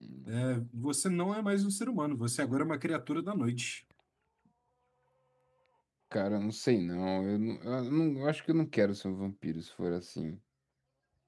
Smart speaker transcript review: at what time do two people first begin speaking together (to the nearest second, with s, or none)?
none